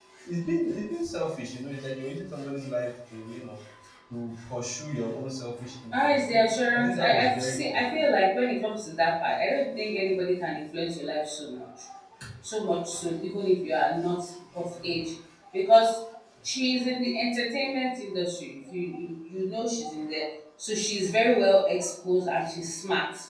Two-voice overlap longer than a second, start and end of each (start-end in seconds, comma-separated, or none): 5.9-7.8